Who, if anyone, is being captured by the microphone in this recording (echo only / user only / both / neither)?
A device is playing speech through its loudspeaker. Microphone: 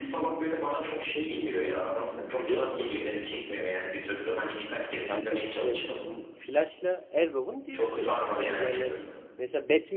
both